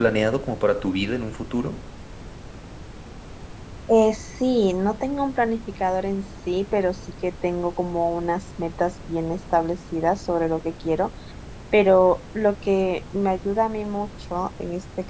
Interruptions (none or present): none